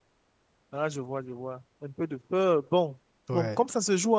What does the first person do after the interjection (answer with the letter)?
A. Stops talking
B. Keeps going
B